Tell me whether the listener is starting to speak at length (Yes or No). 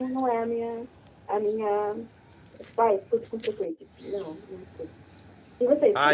Yes